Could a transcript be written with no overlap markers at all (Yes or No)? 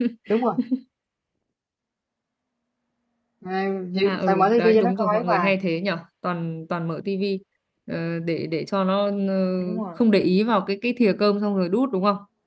No